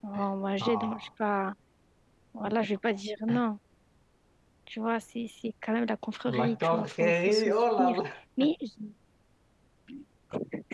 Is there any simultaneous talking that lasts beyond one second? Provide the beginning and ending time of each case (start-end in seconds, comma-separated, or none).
6.3-8.0